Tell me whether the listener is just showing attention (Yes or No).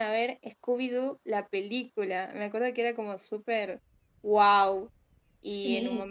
No